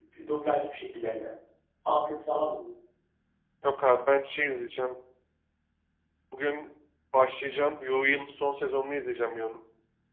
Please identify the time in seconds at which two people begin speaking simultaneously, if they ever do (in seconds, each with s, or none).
none